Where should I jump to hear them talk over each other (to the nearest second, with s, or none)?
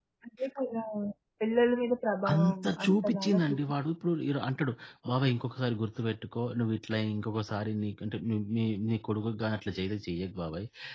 2 s